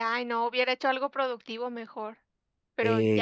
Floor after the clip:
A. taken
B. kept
A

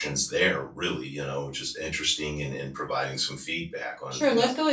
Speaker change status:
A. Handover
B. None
A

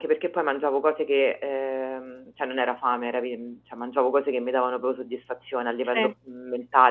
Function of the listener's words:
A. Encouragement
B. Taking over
A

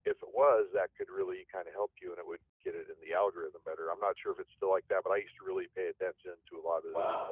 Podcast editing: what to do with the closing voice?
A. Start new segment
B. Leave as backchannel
A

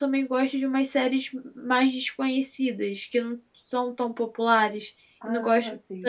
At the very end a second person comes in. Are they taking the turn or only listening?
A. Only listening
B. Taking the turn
A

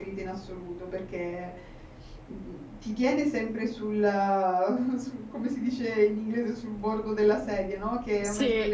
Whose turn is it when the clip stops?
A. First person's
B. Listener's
A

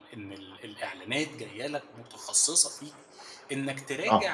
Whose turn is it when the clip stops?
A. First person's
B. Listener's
A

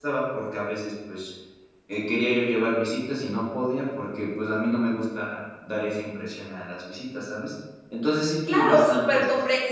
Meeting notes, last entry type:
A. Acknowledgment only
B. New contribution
B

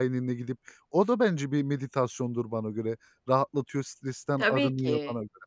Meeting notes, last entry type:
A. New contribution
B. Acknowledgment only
A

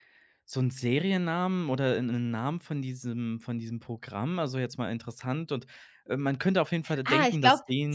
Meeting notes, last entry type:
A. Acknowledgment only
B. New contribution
B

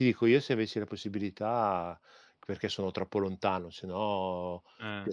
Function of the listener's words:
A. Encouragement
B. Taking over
A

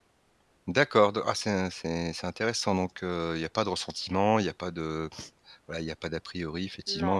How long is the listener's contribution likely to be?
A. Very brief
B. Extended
A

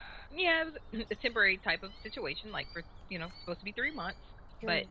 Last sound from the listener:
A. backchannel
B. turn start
A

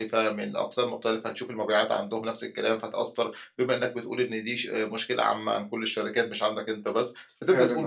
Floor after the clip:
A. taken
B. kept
B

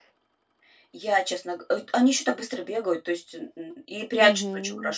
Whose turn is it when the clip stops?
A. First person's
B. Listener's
A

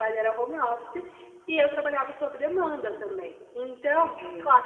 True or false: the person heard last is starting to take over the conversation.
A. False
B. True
A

